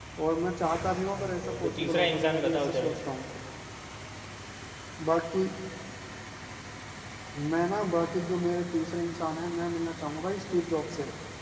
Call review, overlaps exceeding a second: present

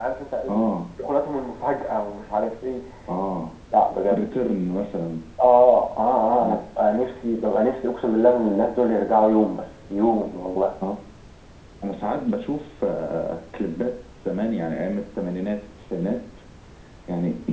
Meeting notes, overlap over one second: none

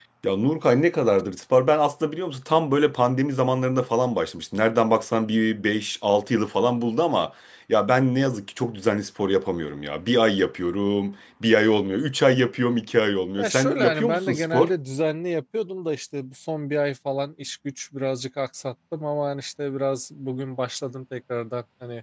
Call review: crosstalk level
present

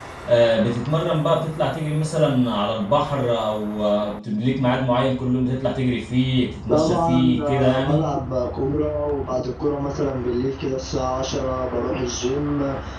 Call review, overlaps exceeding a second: present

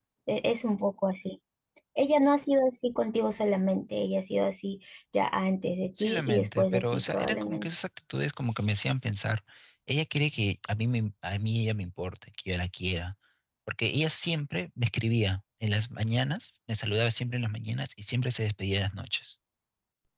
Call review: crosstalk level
present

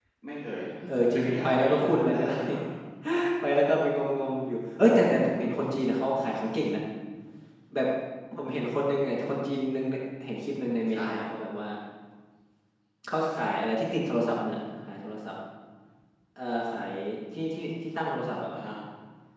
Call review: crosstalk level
present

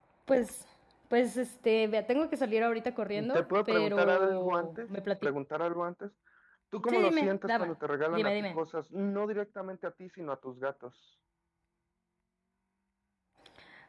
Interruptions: present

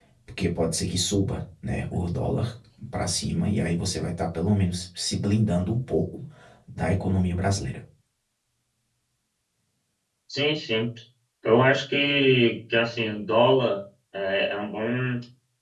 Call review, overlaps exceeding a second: none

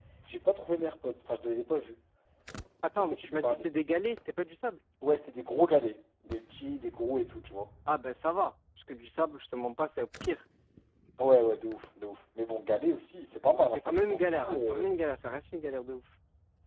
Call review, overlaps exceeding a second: present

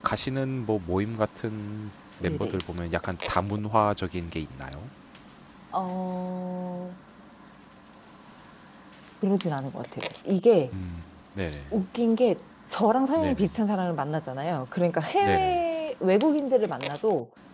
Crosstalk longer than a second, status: none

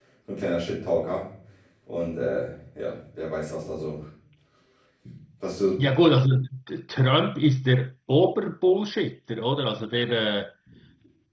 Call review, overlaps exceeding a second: none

